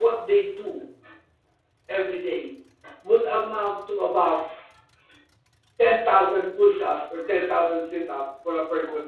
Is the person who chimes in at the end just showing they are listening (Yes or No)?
Yes